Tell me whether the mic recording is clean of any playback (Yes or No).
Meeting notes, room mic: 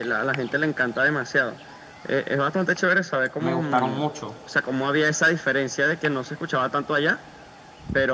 No